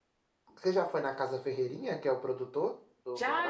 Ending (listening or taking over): taking over